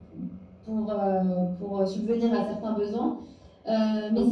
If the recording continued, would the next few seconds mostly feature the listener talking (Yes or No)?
No